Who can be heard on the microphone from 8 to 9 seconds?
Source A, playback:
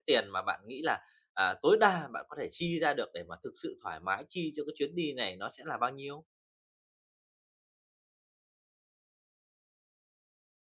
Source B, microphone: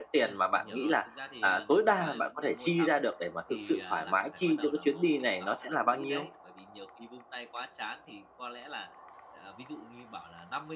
user only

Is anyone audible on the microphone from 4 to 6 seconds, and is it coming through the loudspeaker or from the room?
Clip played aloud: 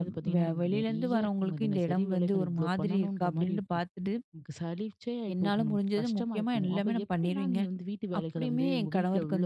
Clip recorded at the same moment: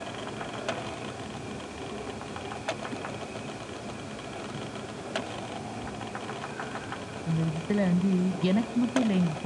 neither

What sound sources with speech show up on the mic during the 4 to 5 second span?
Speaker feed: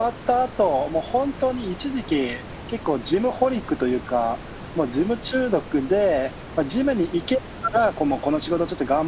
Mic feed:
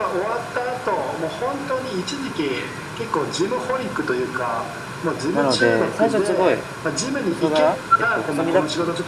echo only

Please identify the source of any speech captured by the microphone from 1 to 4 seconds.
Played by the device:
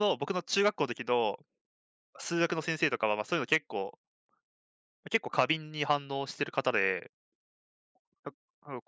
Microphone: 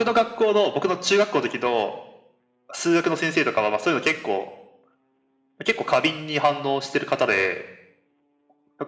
echo only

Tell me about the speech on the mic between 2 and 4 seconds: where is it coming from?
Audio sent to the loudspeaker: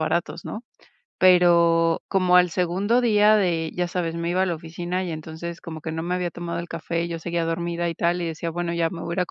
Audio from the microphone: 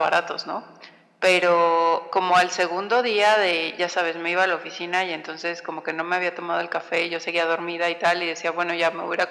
echo only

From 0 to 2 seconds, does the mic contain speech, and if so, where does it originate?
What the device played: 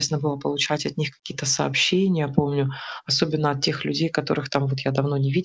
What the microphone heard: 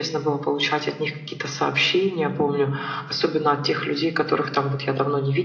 echo only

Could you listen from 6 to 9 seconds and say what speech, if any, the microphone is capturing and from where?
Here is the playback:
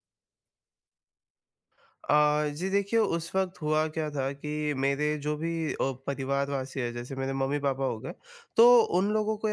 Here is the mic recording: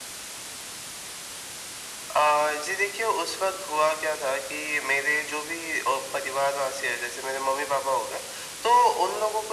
echo only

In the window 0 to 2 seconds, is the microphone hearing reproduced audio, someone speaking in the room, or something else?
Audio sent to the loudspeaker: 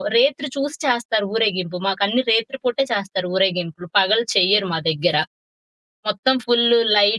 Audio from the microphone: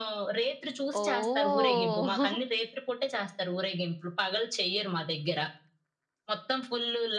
both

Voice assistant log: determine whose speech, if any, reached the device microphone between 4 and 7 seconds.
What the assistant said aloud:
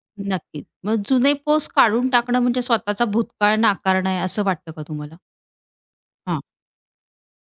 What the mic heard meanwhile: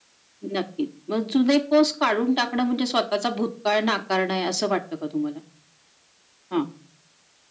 echo only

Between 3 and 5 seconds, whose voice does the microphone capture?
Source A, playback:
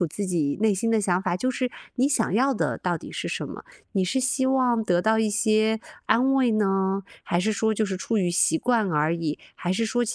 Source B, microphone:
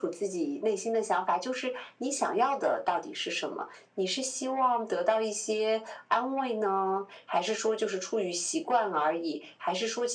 echo only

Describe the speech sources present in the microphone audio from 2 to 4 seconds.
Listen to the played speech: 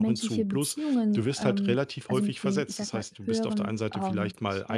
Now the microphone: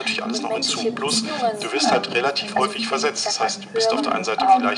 both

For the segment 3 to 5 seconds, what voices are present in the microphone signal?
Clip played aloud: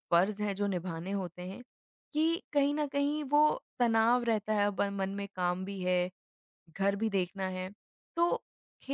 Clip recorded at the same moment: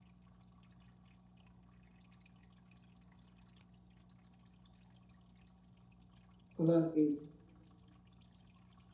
neither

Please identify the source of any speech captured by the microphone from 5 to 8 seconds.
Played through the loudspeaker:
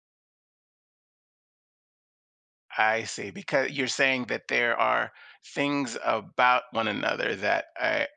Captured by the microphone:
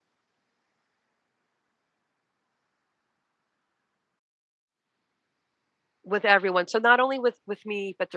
user only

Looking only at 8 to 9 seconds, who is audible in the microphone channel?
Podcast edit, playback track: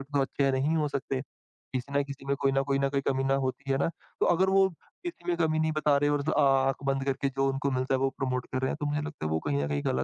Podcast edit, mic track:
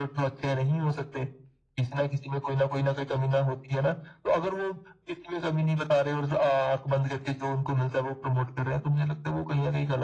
echo only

